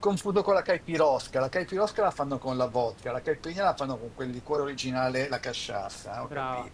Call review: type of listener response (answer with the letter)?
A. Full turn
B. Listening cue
A